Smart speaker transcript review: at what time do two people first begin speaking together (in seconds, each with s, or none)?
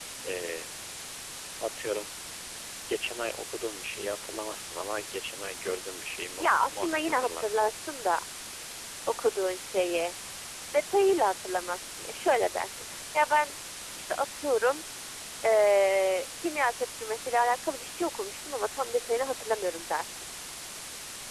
6.4 s